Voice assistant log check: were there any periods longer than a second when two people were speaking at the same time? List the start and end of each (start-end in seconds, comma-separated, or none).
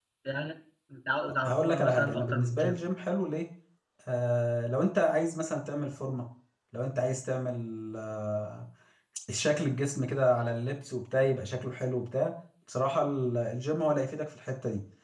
1.4-2.8